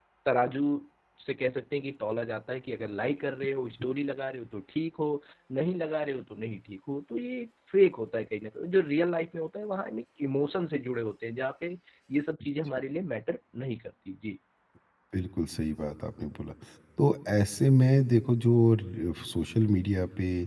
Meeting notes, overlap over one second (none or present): none